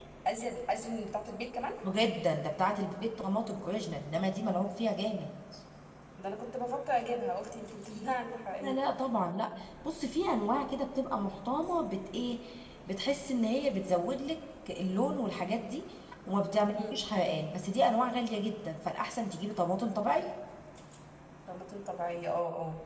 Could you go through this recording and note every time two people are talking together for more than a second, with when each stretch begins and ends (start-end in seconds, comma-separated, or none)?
none